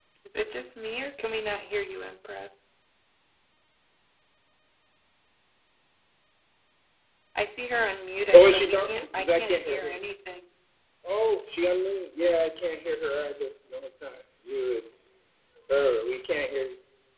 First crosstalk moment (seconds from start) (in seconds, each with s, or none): 8.2 s